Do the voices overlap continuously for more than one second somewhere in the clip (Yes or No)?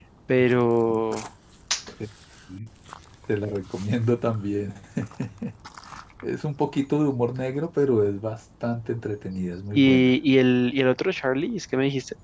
No